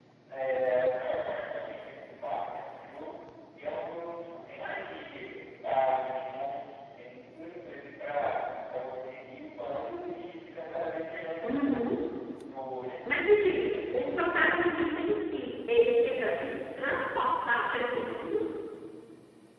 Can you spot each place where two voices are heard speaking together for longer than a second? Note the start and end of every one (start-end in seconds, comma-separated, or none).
13.5-14.7